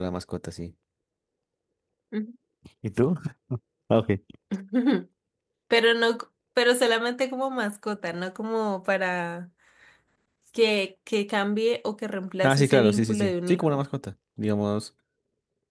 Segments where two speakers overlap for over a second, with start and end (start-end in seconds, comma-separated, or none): 12.4-13.8